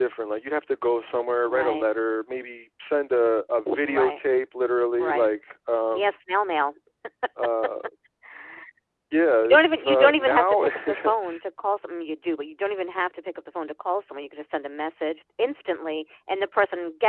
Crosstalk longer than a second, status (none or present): present